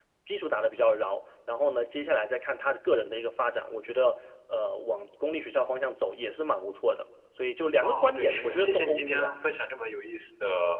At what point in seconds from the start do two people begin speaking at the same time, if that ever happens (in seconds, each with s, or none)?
7.8 s